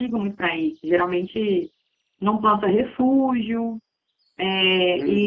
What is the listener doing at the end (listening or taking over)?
taking over